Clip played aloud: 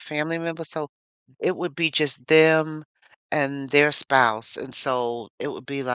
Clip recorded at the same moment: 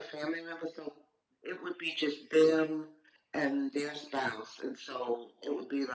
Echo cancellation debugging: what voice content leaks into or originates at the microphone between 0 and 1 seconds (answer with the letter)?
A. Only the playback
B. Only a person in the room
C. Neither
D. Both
A